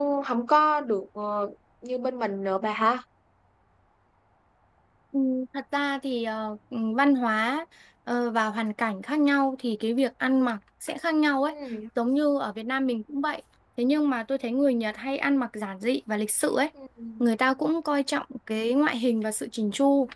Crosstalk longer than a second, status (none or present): none